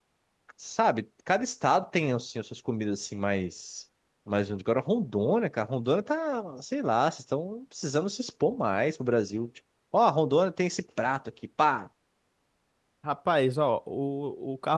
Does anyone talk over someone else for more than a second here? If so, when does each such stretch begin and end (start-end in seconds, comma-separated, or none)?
none